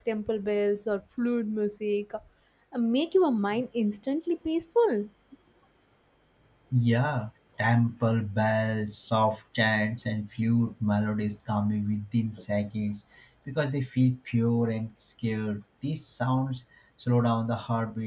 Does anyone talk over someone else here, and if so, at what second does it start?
none

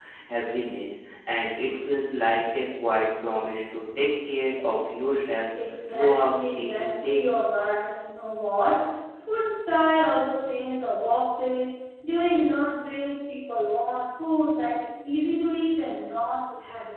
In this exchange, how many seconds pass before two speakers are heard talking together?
6 s

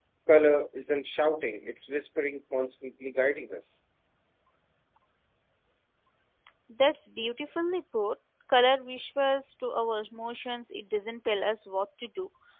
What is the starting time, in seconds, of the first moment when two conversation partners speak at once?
none

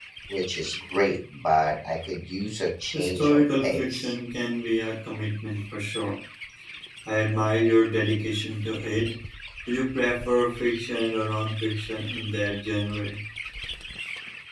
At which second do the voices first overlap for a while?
3 s

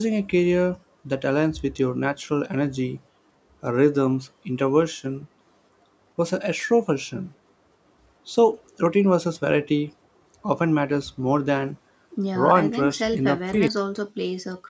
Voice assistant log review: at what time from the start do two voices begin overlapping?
12 s

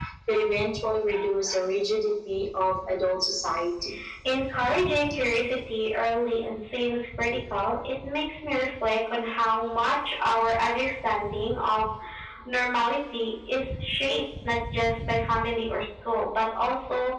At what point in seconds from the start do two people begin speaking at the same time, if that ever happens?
none

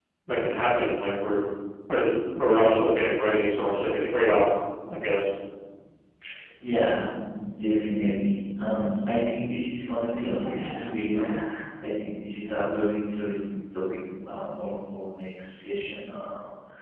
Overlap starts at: none

